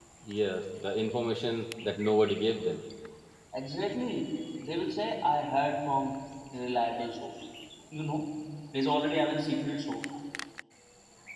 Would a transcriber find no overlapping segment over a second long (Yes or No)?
Yes